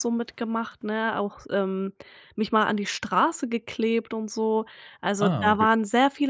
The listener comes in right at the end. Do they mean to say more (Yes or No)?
No